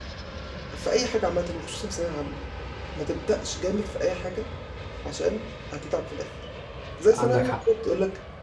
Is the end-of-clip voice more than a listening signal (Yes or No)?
No